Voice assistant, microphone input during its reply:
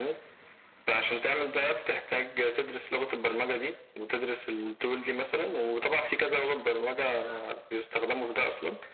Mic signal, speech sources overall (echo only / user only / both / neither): echo only